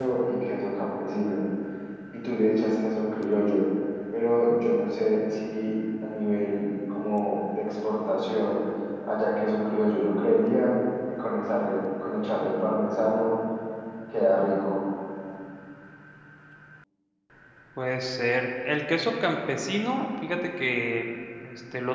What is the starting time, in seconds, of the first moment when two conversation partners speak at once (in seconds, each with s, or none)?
none